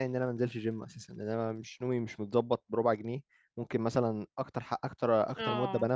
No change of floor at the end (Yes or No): Yes